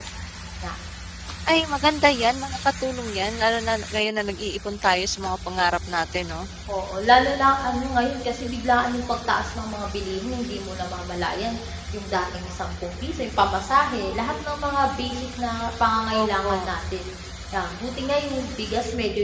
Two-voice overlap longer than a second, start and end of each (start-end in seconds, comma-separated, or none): none